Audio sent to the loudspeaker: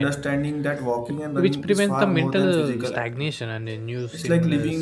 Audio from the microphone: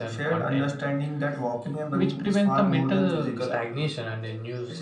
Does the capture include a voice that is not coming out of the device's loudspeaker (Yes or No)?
No